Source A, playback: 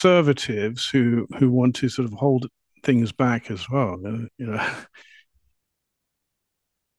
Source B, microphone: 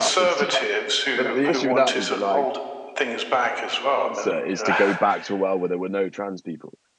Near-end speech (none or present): present